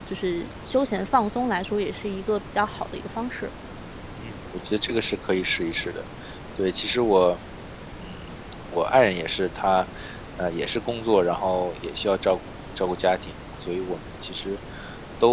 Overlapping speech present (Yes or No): No